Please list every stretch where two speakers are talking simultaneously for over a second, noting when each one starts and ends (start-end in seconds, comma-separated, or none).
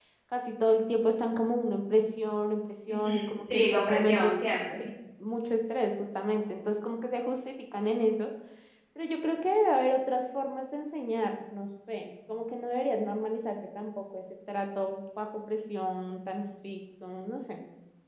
2.9-4.3